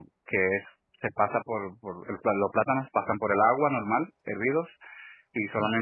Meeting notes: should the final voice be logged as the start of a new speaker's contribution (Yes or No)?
No